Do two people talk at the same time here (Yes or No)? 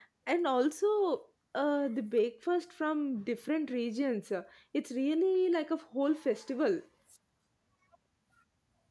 No